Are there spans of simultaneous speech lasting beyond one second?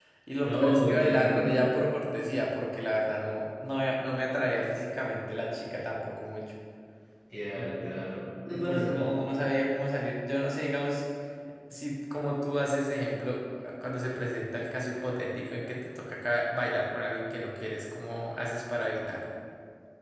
Yes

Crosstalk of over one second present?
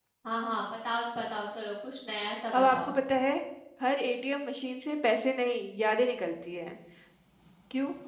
No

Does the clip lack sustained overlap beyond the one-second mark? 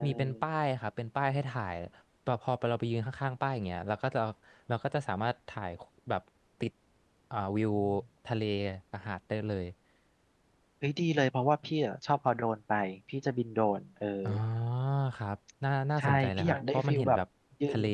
No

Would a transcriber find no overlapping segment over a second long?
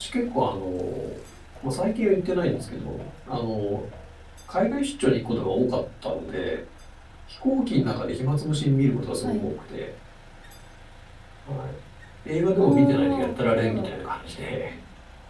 No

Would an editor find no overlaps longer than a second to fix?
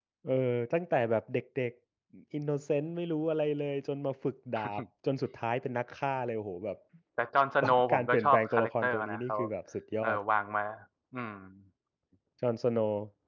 No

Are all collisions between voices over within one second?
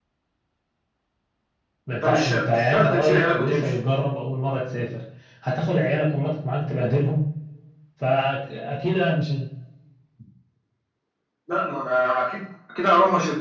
No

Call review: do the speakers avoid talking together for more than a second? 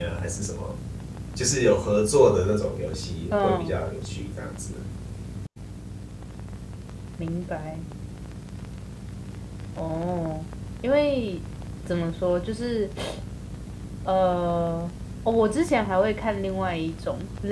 Yes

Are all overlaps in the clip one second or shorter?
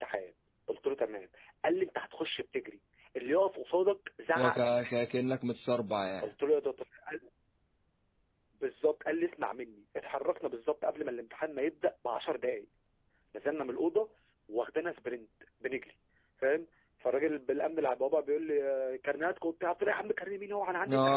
Yes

